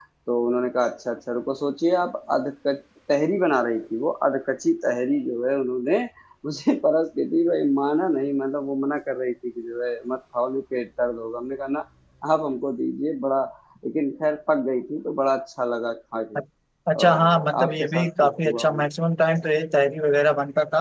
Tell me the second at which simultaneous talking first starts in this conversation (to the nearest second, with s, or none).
17 s